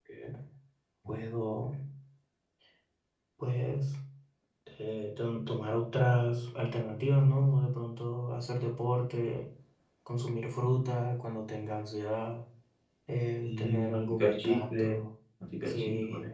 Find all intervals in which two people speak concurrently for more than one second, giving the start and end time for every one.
13.4-15.0

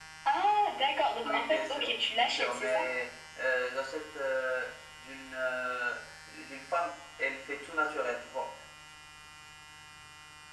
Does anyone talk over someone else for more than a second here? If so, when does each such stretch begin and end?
1.2-2.8

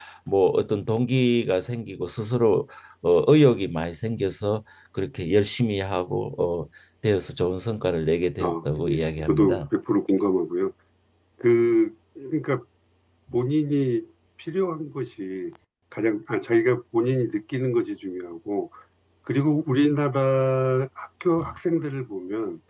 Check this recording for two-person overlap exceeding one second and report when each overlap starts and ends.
8.4-9.6

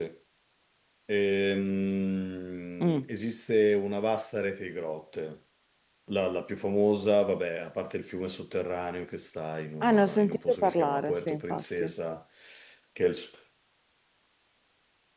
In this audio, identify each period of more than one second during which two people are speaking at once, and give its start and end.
9.8-11.9

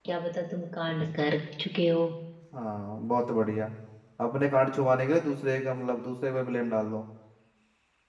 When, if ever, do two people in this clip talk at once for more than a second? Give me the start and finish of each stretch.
none

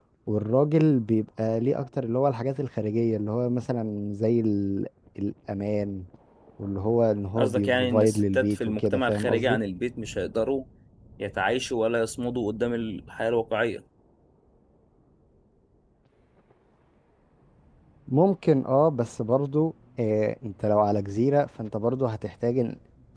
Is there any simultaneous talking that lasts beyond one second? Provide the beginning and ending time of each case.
7.4-9.6

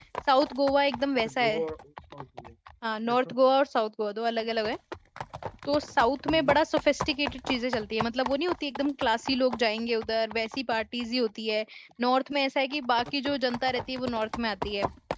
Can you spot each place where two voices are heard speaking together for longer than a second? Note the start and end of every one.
none

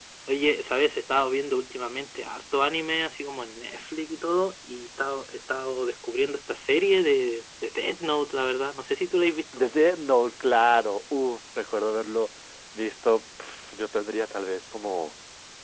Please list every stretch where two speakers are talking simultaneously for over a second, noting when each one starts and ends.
none

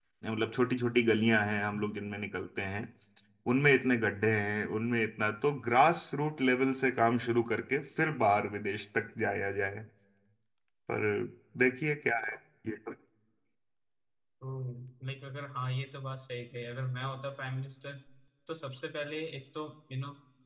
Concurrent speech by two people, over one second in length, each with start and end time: none

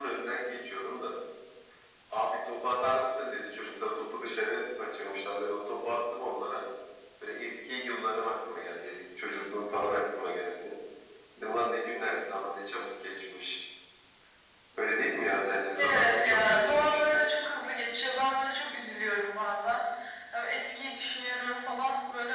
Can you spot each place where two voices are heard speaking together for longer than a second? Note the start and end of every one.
15.8-17.2

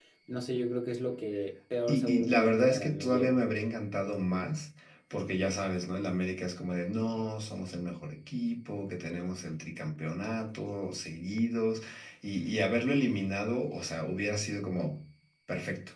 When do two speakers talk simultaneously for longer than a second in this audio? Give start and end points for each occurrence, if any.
1.9-3.4

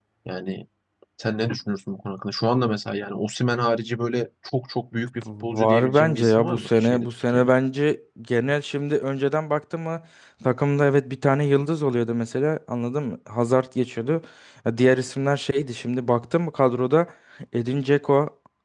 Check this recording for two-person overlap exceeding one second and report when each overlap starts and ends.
5.4-7.5

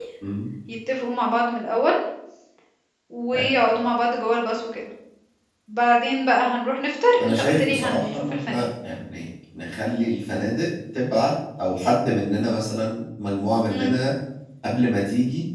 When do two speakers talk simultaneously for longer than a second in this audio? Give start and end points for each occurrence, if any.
7.2-8.7

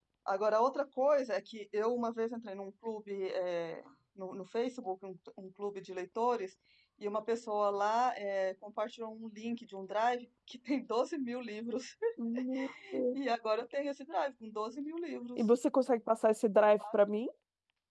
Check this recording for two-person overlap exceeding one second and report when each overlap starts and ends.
none

